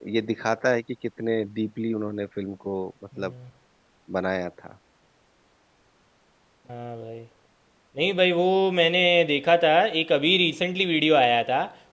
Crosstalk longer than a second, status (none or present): none